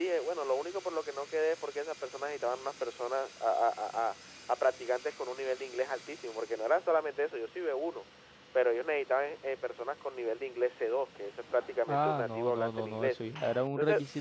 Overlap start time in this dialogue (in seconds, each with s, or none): 11.9 s